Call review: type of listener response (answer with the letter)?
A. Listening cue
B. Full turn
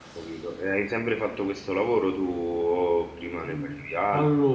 B